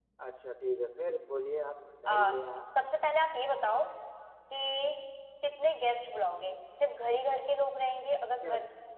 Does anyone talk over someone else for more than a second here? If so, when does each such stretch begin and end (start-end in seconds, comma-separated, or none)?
none